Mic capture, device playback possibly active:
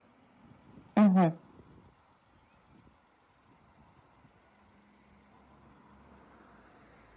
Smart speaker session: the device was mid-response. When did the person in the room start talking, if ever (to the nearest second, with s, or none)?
1 s